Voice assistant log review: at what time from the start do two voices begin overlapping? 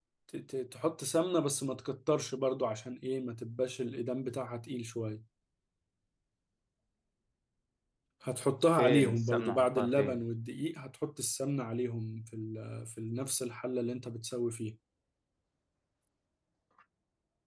8.8 s

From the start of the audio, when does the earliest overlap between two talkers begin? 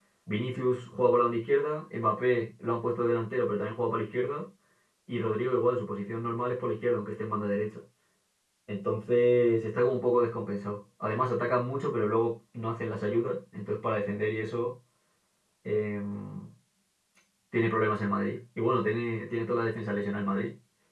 none

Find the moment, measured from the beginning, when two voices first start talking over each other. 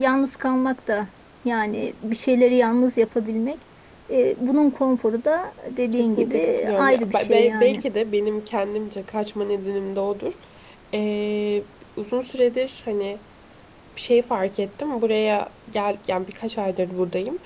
5.9 s

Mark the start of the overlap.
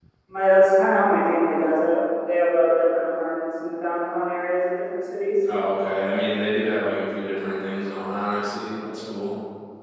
none

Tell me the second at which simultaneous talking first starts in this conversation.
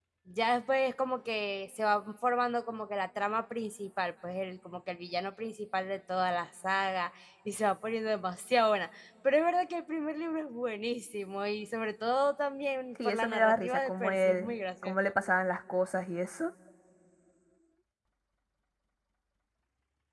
12.9 s

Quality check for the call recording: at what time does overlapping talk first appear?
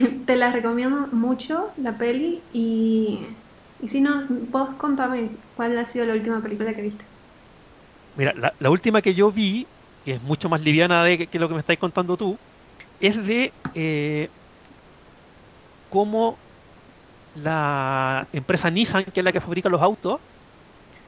none

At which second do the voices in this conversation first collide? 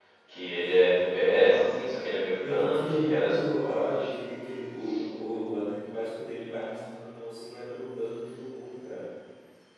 2.4 s

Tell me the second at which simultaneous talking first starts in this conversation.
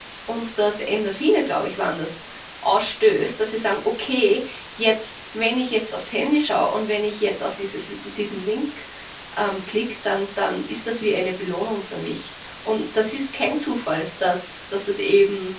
none

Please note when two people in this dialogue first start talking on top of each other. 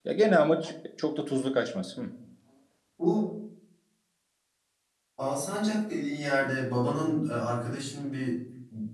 none

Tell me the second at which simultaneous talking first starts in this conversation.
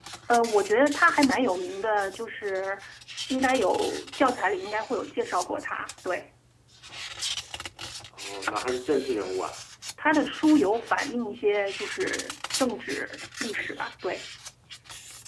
none

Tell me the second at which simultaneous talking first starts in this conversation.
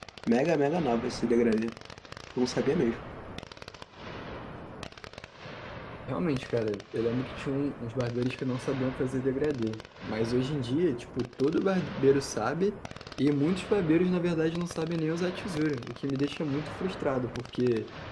none

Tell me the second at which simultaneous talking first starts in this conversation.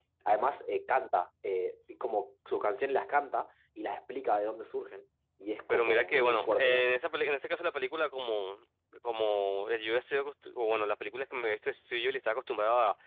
5.7 s

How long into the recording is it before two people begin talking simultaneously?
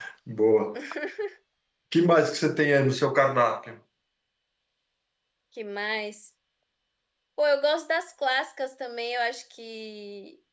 none

